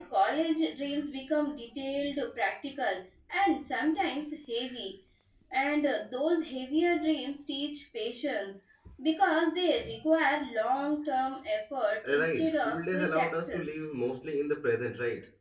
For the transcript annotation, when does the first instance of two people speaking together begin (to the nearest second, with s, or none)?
12 s